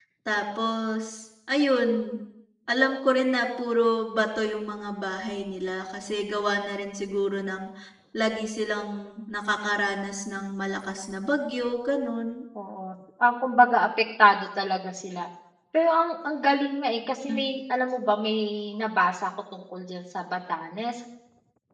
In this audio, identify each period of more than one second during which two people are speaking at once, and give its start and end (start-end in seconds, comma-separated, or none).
none